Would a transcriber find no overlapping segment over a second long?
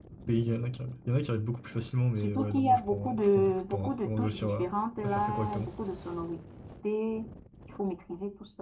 No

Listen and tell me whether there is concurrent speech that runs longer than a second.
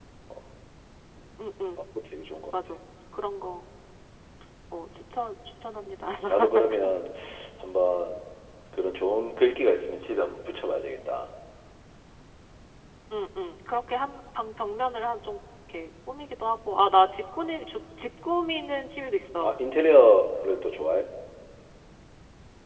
No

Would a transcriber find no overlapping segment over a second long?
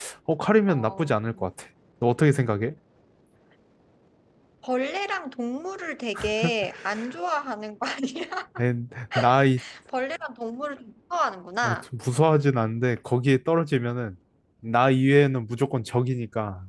Yes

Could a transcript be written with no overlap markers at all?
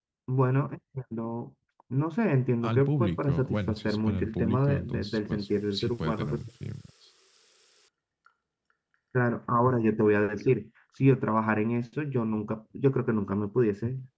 No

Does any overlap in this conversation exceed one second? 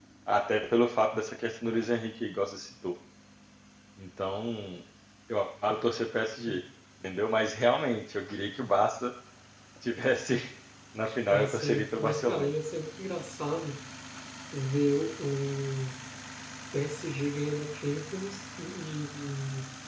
Yes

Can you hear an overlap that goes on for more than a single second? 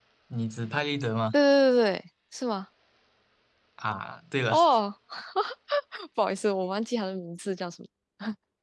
No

